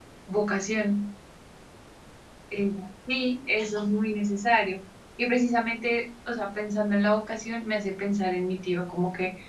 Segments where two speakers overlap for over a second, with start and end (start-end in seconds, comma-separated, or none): none